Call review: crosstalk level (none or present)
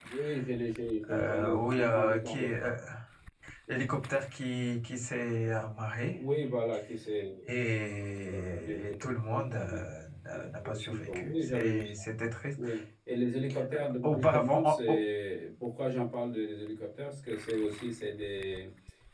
present